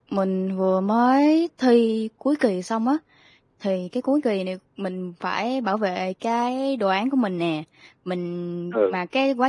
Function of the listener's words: listening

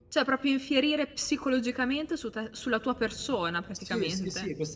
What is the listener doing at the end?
taking over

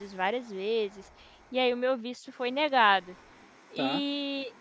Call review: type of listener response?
listening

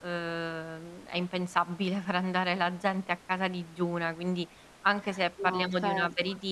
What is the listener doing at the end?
listening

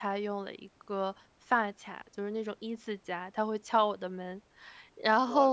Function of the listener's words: listening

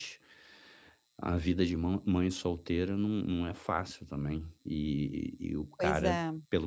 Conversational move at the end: listening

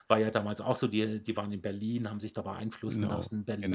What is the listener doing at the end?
listening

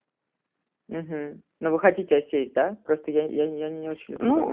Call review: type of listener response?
taking over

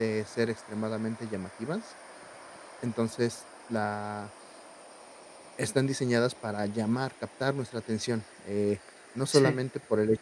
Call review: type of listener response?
listening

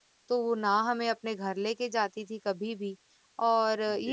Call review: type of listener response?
listening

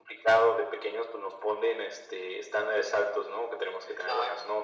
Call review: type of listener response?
listening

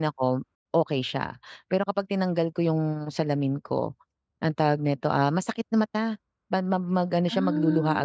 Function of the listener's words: listening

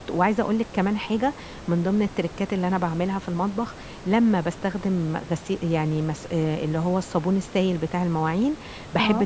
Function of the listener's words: listening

